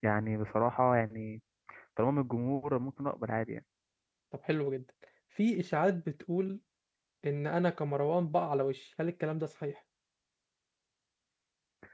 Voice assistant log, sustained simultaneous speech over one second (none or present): none